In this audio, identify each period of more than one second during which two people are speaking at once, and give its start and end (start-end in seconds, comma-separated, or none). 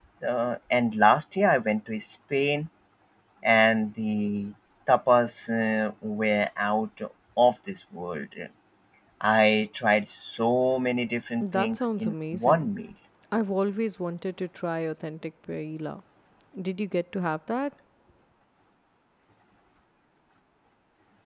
11.4-12.7